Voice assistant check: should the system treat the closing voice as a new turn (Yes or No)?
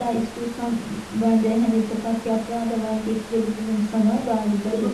Yes